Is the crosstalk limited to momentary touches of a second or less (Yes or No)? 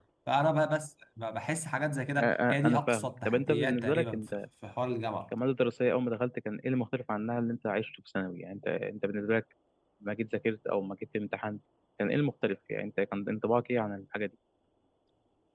No